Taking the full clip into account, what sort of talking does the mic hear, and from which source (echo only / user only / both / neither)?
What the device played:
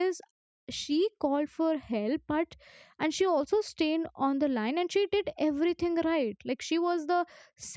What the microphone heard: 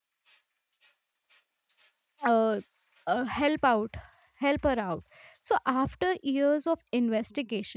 user only